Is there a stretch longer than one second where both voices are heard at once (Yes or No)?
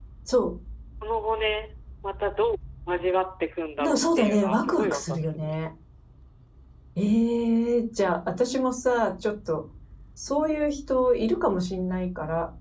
Yes